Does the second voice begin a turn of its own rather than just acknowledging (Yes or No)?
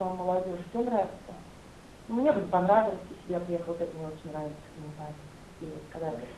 Yes